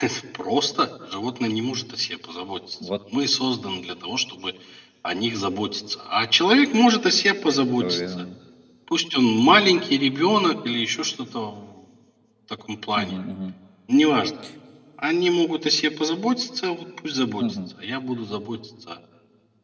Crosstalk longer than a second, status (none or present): none